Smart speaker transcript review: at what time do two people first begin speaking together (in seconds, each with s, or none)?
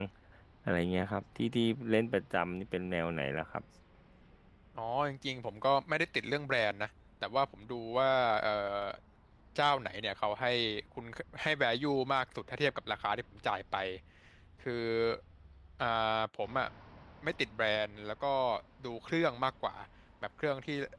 none